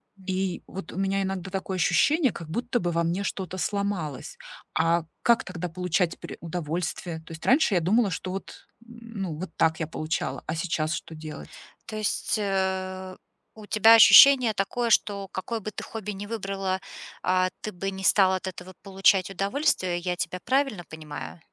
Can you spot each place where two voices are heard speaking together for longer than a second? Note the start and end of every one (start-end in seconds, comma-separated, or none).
none